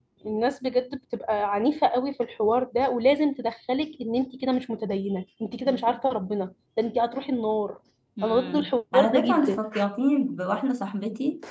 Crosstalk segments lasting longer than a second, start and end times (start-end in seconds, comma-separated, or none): 8.2-9.6